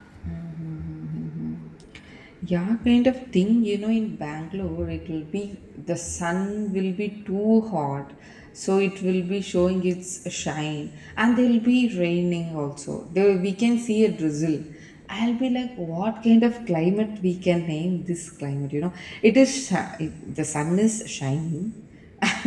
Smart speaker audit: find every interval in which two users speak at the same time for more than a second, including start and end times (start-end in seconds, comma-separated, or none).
none